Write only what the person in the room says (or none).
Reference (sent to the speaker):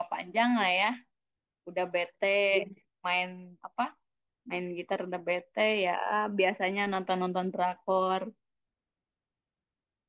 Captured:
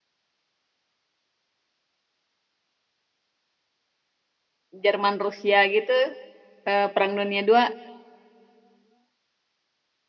Jerman Rusia gitu, eh, Perang Dunia II